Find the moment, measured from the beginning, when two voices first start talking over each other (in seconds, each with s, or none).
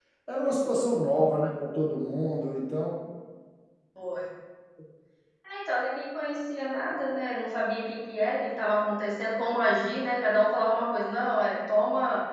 none